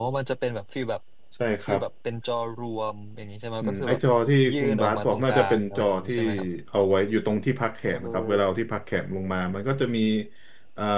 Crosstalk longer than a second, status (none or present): present